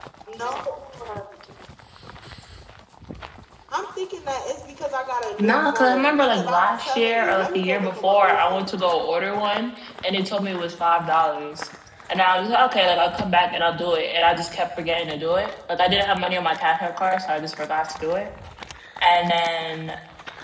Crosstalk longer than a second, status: present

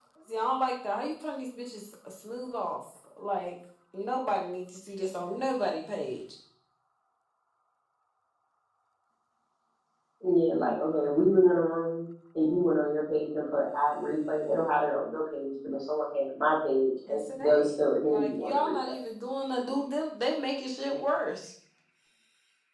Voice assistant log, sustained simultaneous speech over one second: present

